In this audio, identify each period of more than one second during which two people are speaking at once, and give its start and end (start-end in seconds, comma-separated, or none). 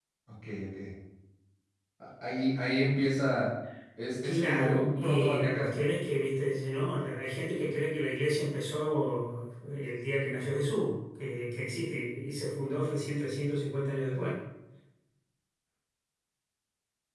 4.2-5.8